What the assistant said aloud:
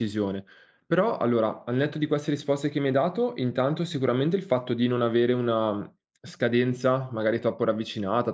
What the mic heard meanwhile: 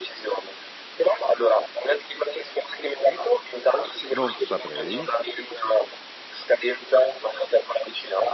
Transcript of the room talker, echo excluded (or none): non saprei."